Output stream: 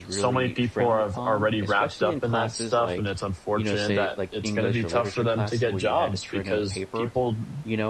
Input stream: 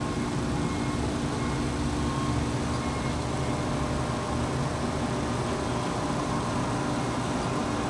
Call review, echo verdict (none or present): none